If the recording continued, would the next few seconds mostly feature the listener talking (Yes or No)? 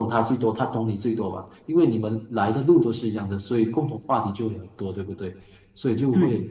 No